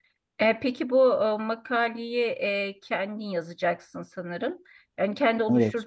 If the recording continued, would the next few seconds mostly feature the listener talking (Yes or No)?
No